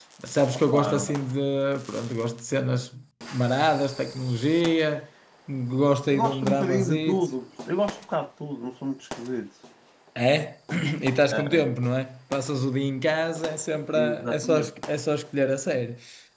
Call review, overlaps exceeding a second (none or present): present